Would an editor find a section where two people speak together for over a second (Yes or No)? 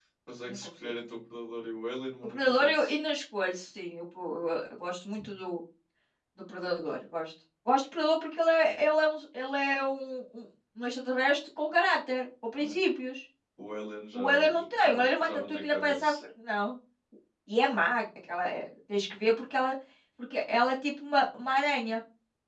Yes